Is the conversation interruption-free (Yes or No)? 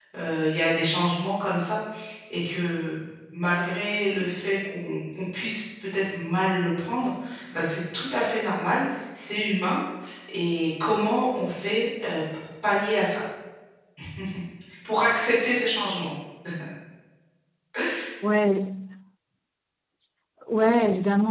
Yes